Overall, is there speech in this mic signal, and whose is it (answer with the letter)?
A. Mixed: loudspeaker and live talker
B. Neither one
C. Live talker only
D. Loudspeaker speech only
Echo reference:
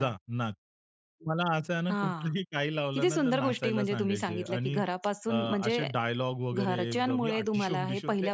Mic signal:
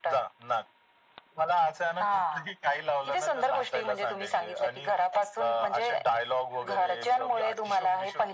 D